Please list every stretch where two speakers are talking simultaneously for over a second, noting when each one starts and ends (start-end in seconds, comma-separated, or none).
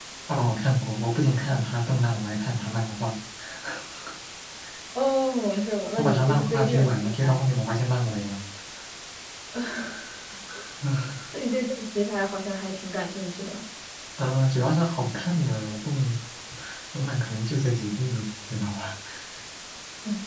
6.0-7.4